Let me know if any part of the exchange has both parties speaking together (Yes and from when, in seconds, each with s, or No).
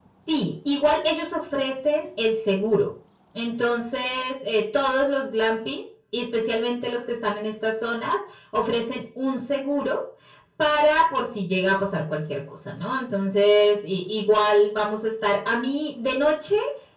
No